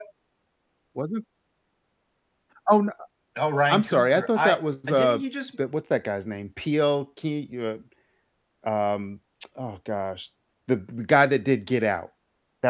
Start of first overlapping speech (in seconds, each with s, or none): 3.7 s